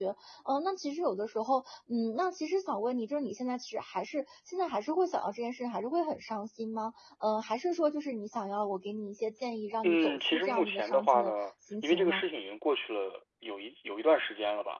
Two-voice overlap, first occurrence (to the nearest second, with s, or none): 10 s